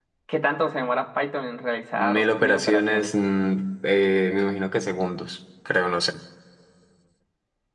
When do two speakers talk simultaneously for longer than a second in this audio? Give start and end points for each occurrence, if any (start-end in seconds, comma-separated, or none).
1.9-3.1